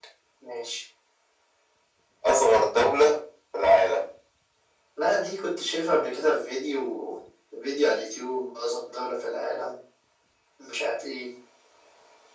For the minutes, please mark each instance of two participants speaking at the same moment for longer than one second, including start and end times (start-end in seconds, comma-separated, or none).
none